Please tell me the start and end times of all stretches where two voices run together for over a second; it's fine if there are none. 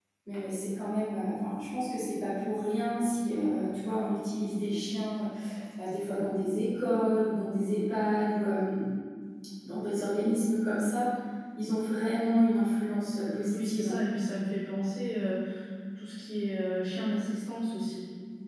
none

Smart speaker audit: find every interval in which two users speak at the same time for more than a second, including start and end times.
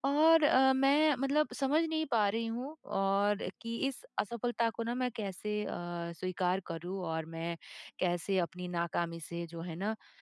none

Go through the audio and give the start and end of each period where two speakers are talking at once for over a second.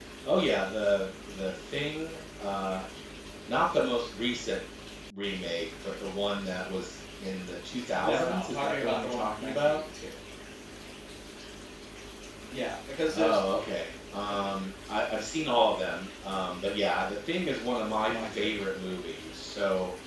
7.9-9.8

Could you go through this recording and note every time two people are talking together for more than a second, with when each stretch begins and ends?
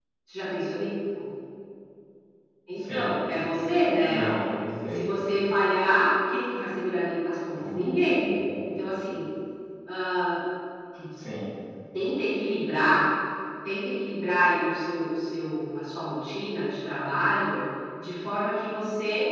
none

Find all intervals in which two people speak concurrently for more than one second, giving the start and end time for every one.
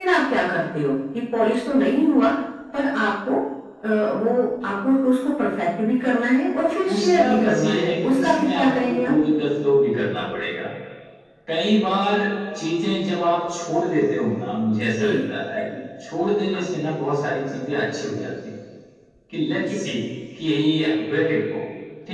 6.9-9.1

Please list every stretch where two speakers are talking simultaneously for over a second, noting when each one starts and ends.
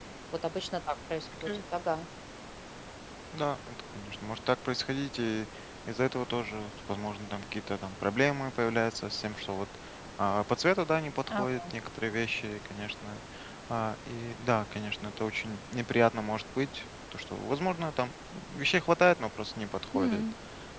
none

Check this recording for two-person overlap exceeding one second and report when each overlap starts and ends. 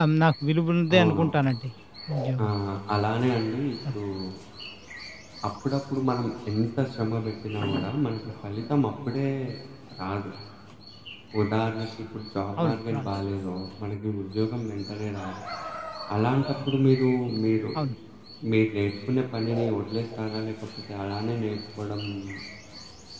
none

